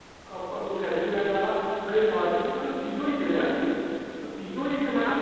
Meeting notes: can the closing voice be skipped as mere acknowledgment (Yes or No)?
No